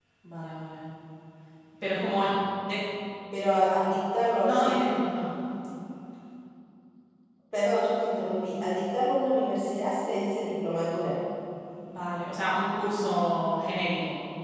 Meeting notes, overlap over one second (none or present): none